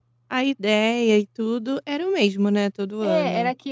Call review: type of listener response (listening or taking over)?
taking over